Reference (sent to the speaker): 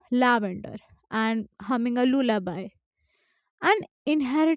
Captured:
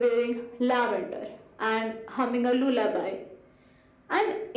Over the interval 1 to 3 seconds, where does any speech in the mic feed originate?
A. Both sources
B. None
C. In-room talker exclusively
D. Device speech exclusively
D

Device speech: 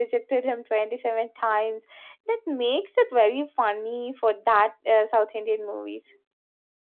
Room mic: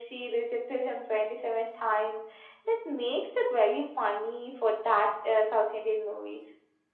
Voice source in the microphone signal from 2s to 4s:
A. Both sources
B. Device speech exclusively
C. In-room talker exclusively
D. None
B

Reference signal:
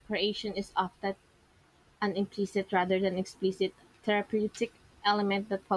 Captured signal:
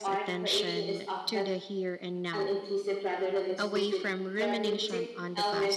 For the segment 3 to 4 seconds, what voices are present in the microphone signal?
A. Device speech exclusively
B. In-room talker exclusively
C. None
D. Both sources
D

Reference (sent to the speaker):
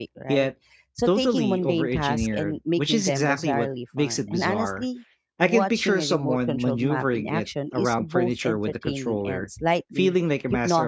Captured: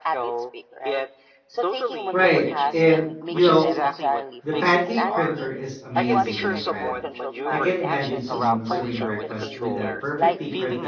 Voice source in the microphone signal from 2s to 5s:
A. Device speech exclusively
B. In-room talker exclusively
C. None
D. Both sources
D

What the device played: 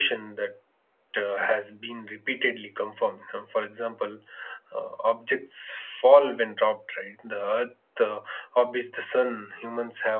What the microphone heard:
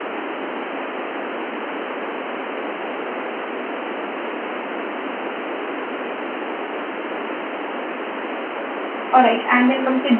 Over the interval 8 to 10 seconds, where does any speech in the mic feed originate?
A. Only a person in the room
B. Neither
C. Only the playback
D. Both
A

